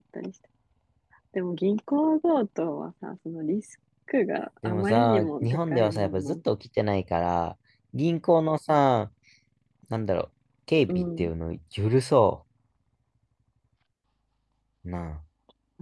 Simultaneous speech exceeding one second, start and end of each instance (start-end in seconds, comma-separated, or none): 4.7-6.3